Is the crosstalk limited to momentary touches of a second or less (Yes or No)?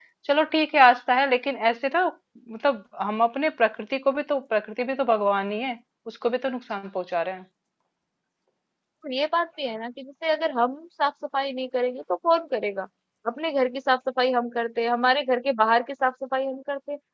Yes